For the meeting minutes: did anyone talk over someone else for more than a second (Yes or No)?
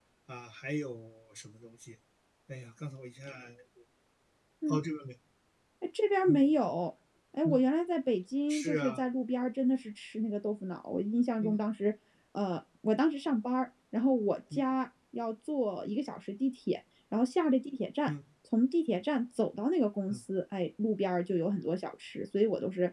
No